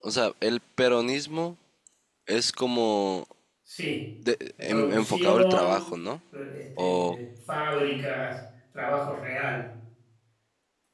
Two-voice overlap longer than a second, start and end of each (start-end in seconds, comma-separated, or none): 4.6-5.8